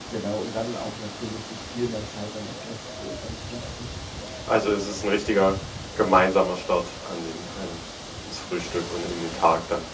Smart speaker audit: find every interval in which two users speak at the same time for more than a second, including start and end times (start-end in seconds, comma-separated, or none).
none